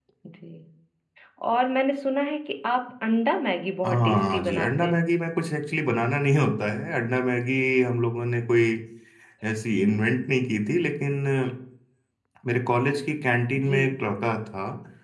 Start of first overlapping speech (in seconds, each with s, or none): 3.8 s